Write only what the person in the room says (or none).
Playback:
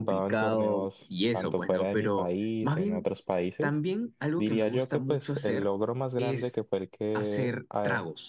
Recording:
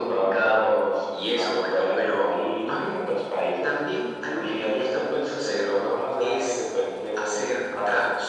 none